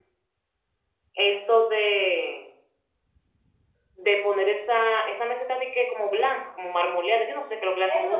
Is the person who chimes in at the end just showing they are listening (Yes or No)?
No